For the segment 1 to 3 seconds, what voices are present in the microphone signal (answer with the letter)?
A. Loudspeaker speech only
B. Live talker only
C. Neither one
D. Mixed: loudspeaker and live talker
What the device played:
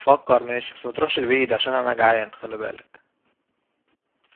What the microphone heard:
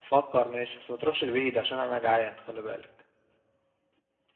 A